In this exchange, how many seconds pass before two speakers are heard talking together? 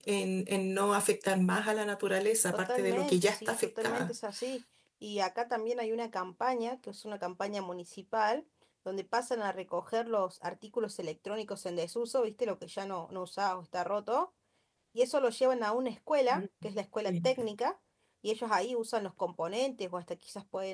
3 s

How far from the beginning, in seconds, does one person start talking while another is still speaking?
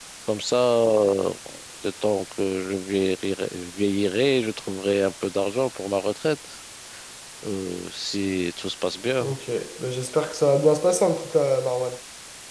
none

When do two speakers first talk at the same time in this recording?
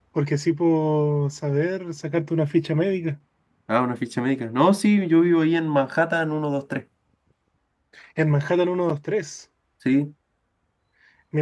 none

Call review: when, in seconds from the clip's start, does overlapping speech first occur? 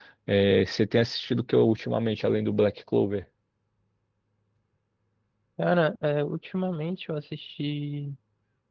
none

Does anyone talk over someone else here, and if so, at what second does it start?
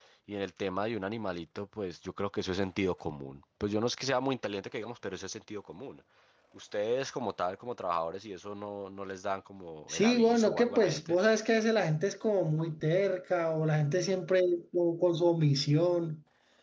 10 s

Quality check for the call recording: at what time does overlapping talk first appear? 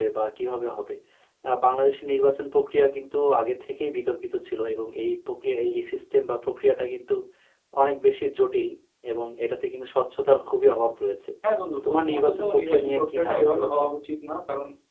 12 s

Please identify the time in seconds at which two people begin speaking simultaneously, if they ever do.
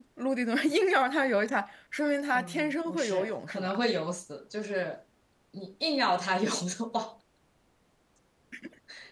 2 s

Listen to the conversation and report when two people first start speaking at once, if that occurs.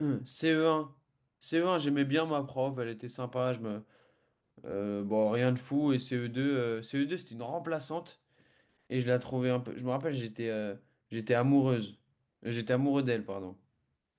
none

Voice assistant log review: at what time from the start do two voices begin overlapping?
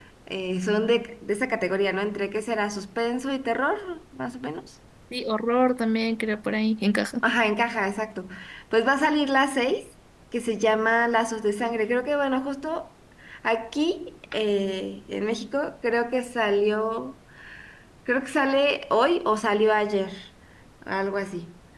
none

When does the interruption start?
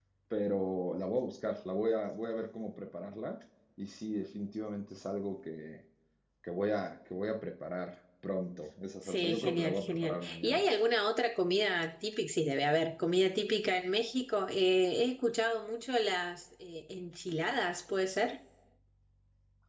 9 s

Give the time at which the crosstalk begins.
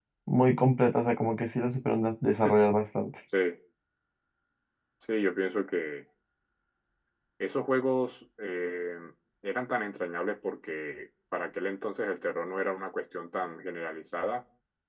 none

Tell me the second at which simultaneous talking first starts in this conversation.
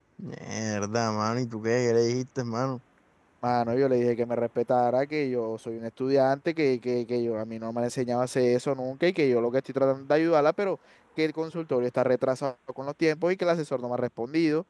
none

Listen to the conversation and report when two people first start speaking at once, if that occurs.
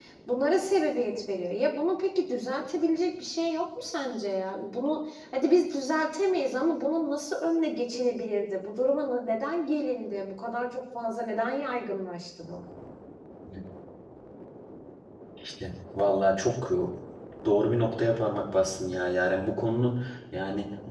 none

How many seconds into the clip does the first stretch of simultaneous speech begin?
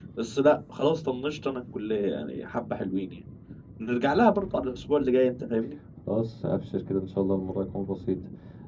none

